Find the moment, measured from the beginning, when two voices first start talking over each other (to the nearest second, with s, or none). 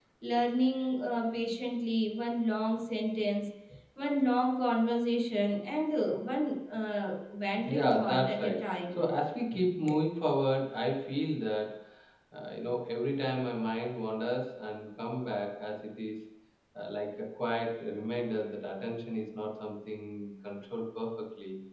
8 s